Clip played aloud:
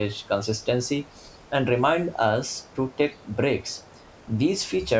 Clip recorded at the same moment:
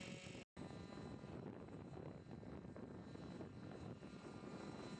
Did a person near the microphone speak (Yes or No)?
No